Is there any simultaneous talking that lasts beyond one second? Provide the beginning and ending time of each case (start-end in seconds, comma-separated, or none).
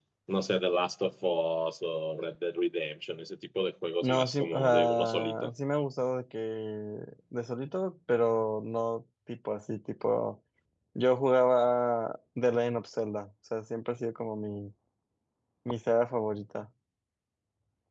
4.0-5.5